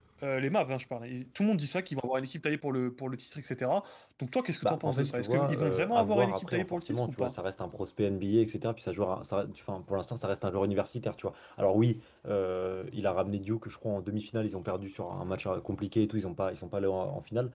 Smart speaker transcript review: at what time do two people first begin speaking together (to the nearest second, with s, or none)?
5 s